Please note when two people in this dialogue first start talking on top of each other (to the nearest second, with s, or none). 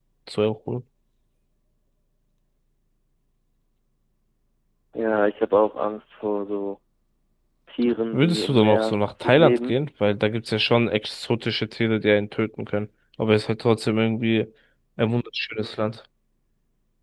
8 s